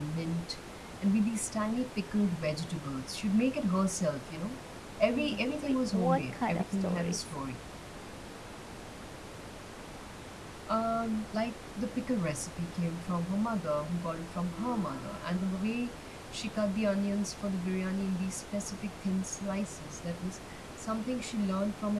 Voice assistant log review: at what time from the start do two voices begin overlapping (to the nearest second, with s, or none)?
5 s